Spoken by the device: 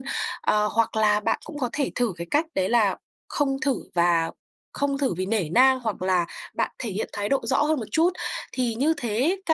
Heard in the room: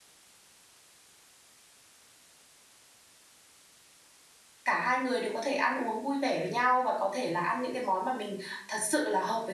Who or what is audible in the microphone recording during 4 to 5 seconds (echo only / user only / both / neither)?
user only